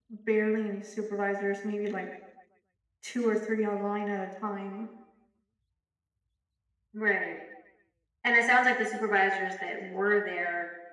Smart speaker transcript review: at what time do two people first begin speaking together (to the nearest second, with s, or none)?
none